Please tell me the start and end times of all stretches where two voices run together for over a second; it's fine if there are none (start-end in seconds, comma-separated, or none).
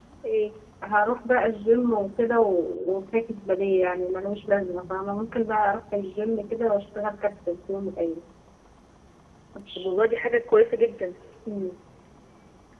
none